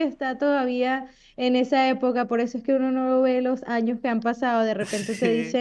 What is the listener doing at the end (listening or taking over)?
listening